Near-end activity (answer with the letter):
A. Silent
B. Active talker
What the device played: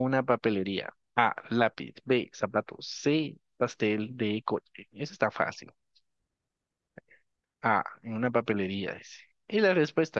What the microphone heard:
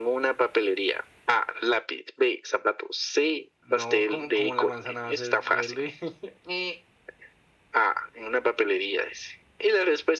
B